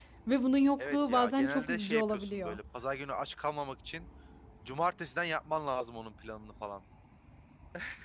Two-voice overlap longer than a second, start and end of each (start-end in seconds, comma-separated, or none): 0.8-2.6